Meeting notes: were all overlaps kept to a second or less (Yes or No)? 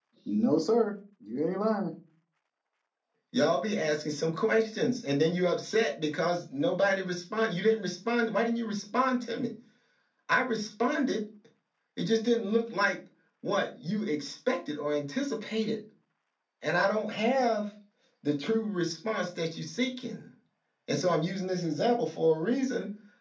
Yes